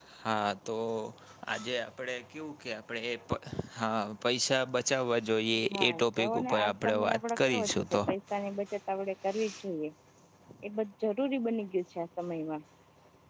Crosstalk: present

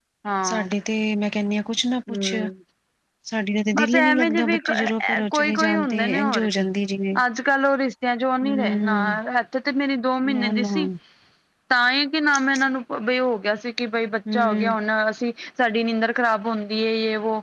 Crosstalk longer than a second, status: present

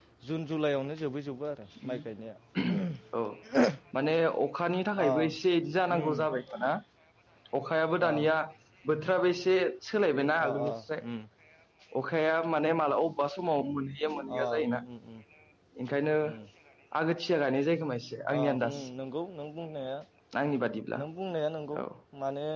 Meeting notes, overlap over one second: none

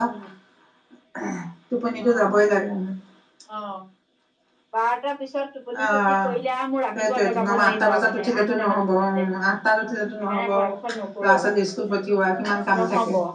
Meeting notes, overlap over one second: present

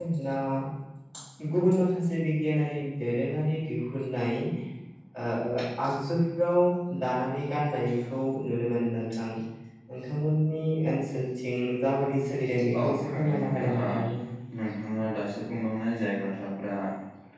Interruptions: present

